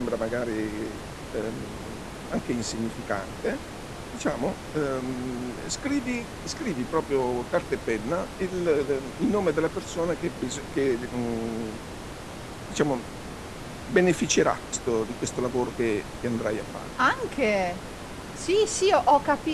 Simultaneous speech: No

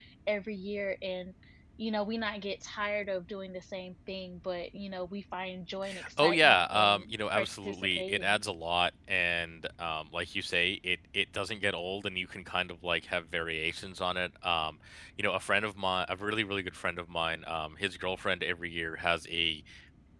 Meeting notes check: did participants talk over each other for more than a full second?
Yes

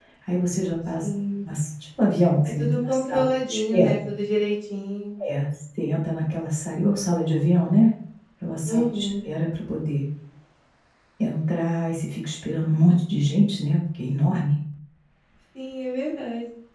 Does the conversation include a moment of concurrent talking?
Yes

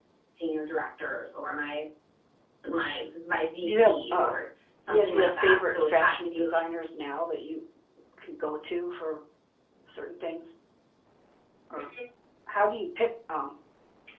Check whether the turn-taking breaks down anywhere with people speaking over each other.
Yes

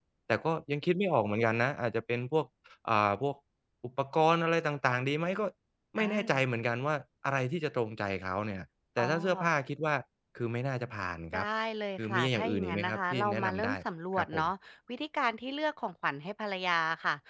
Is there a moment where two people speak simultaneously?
Yes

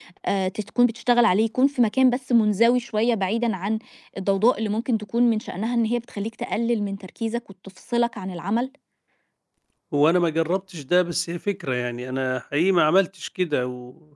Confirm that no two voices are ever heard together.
Yes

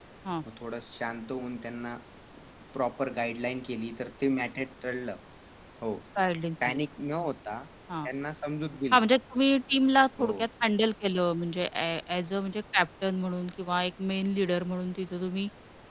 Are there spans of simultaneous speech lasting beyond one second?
No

